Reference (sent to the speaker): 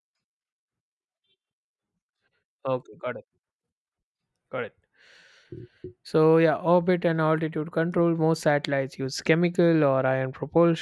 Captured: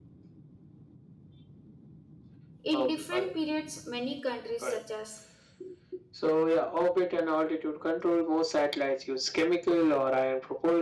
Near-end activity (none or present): present